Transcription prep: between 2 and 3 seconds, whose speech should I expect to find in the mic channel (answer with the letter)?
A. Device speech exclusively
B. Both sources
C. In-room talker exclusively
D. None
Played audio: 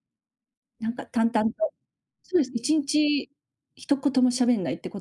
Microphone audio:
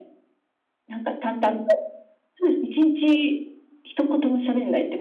A